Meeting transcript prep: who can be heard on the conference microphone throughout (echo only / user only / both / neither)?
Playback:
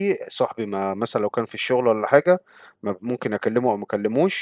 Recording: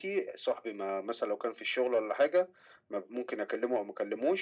echo only